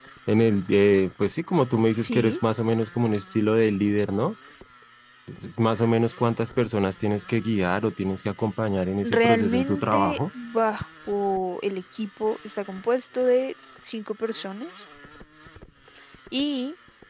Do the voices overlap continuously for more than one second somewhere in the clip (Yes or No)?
Yes